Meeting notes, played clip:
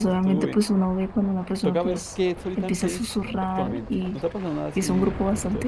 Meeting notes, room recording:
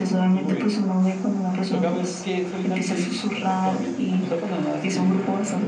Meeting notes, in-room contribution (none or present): none